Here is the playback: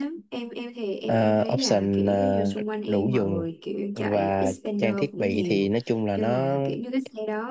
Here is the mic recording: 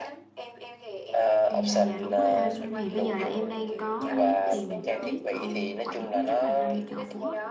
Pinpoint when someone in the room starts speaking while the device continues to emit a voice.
1.5 s

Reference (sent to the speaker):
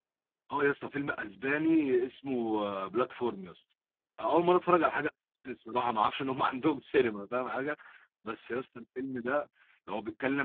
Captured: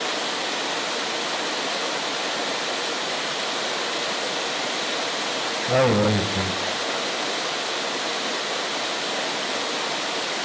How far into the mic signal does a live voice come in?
5.7 s

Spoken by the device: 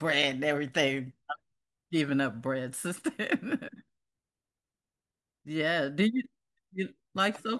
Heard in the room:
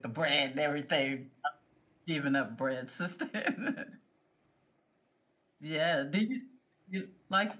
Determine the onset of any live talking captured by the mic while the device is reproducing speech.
none

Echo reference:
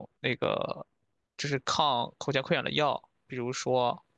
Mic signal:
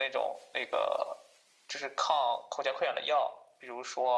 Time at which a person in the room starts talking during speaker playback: none

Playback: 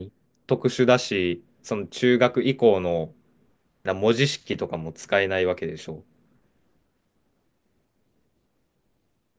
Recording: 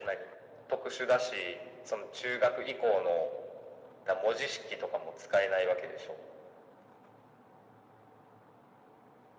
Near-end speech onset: none

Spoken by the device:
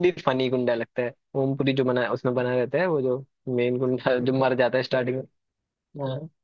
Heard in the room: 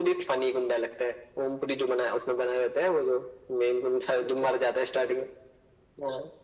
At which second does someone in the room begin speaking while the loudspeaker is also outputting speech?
none

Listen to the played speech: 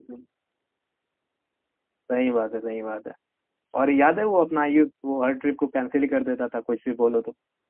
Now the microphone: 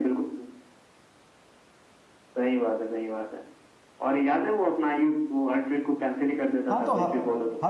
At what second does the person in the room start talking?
6.7 s

